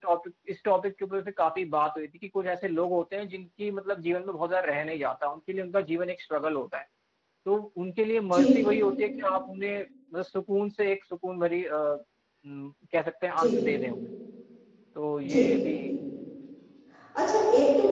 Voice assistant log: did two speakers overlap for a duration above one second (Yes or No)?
No